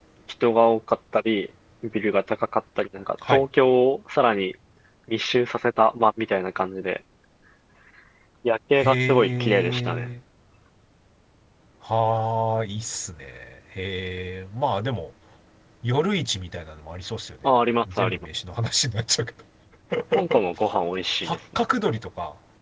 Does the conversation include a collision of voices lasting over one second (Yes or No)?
Yes